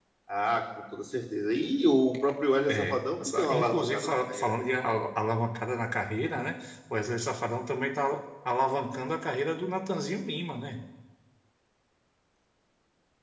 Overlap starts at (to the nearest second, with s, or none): 3 s